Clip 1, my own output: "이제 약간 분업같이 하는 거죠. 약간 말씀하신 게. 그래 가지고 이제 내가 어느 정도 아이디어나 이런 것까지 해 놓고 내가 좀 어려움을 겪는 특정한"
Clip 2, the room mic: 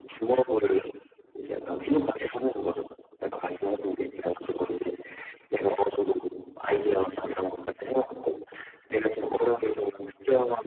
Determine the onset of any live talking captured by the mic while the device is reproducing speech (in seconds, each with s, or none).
none